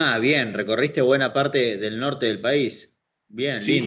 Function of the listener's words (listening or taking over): taking over